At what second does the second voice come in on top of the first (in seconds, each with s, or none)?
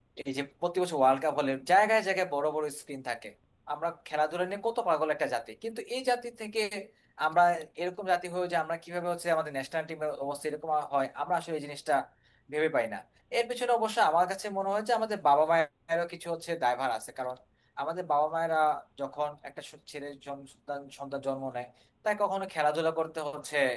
none